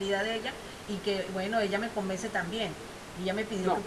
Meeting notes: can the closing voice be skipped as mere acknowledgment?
Yes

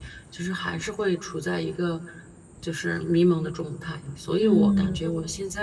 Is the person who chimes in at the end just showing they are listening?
Yes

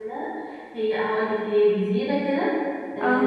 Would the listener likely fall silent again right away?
Yes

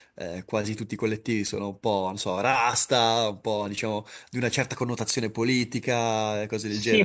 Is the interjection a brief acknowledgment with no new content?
No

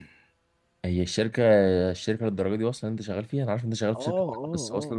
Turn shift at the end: Yes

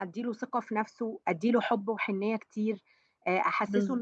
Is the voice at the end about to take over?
No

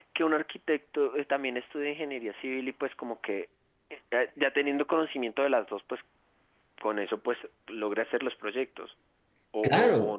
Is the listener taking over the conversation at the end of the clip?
Yes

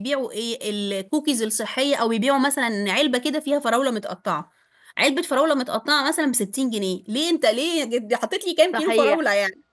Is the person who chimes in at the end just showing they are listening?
No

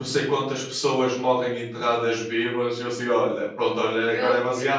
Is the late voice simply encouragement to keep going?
Yes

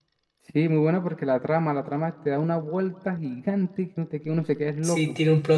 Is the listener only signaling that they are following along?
No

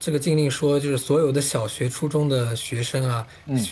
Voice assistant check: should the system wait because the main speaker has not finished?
Yes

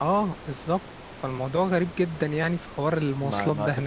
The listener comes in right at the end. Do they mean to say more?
Yes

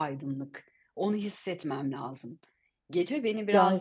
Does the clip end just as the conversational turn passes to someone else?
No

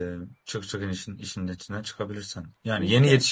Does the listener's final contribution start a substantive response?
No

